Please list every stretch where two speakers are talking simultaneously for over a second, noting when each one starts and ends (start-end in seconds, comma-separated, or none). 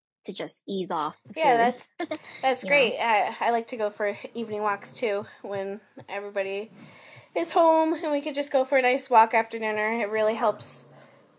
none